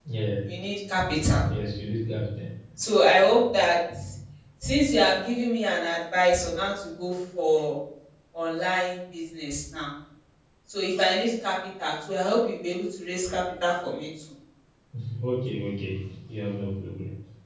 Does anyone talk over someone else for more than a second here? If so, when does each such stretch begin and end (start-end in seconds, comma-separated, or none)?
none